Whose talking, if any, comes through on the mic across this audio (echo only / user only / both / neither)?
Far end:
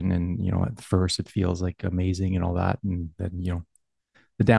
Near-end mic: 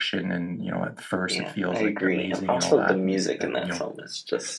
both